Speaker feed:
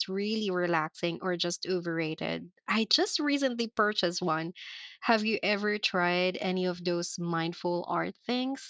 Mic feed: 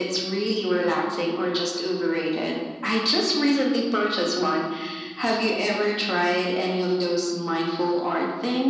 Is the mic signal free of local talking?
Yes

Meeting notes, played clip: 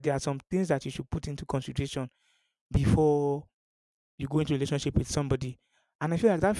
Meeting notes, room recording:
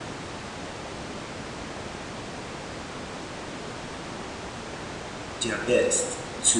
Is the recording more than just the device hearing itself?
Yes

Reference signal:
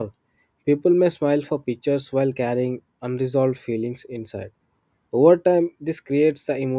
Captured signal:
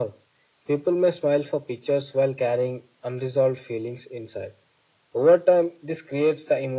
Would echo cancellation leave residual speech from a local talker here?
No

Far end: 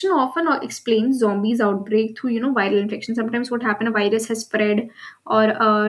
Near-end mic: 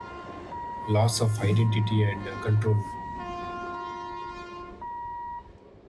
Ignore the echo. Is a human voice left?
Yes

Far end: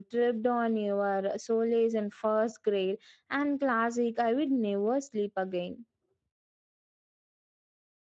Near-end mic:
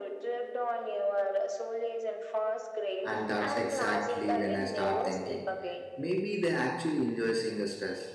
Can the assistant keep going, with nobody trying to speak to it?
No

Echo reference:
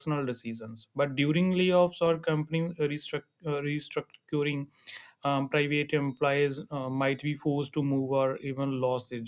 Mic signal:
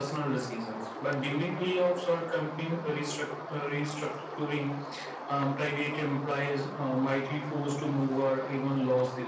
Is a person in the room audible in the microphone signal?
No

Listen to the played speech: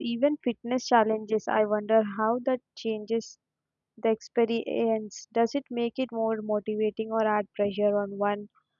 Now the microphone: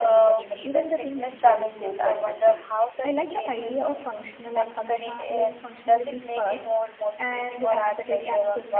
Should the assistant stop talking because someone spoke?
Yes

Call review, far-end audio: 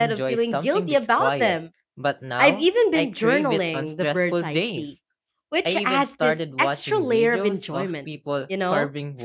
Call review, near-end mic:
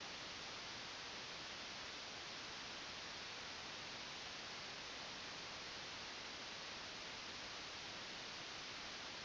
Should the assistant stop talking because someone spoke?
No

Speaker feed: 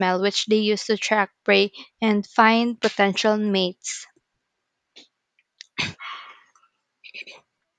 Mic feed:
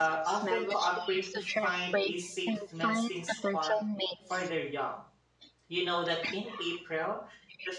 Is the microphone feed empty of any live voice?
No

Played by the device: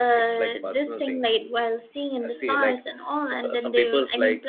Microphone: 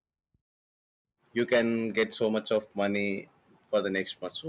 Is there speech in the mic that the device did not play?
Yes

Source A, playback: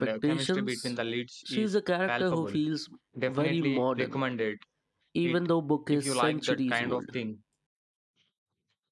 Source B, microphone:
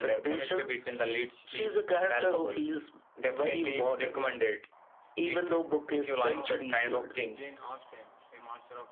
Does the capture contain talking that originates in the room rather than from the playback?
Yes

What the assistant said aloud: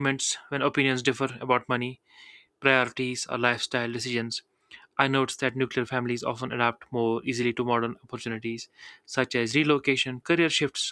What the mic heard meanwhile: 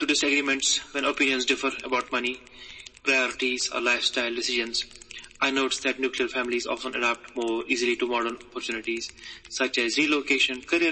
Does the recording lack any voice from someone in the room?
Yes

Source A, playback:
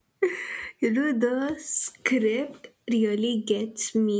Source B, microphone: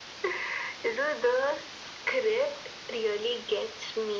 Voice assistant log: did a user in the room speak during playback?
No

